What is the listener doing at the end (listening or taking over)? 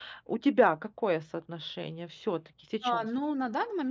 taking over